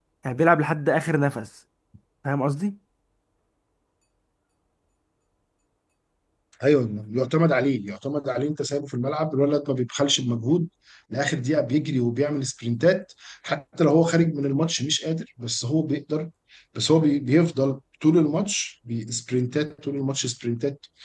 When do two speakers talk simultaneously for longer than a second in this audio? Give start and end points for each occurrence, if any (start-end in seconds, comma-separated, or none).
none